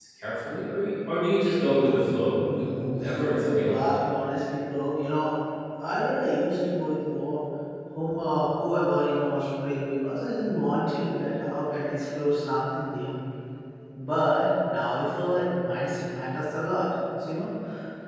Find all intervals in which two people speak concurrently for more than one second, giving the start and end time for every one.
2.4-3.9

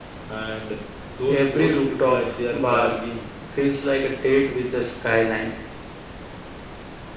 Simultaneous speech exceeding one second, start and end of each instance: 1.3-3.0

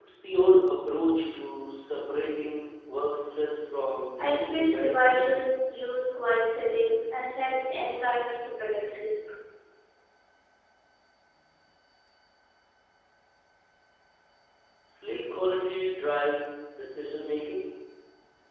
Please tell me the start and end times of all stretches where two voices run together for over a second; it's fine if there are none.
4.2-5.5

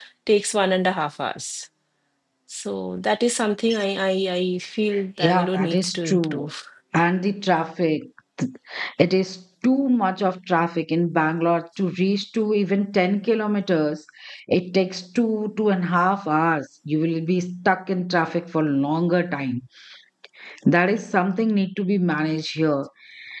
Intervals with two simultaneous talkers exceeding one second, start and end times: 5.2-6.5

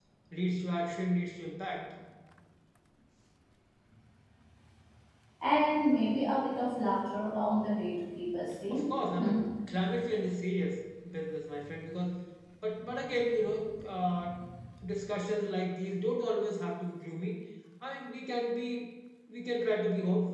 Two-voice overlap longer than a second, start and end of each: none

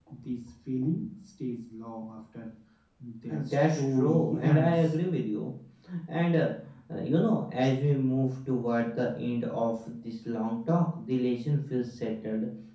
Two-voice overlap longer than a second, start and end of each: 3.3-4.8

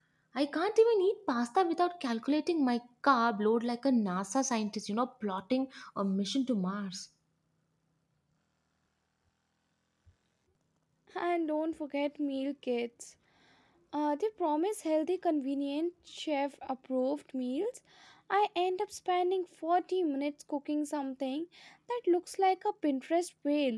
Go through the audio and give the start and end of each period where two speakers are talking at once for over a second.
none

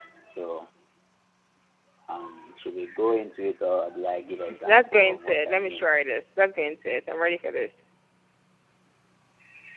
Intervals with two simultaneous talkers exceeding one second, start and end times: 4.6-5.8

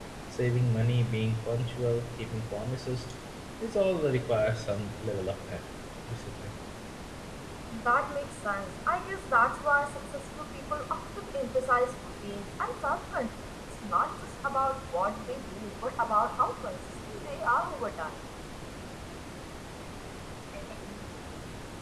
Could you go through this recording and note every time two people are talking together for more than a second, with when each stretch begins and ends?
none

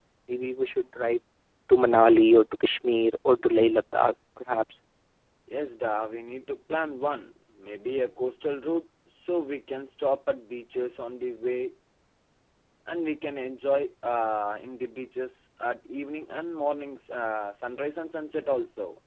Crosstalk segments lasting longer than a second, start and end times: none

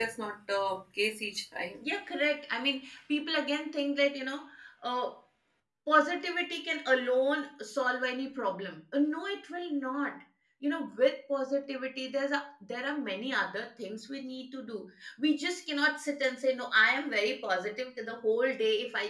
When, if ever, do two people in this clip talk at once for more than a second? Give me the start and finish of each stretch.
none

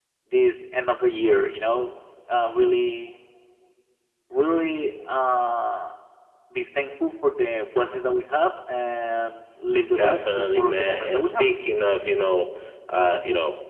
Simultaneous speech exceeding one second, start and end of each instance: 10.0-11.4

